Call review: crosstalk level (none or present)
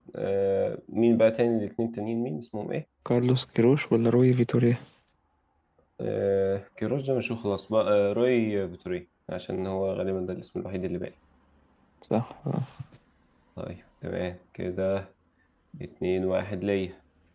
none